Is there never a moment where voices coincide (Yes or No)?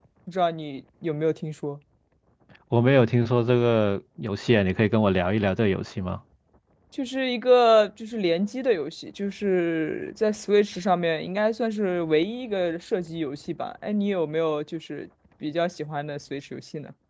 Yes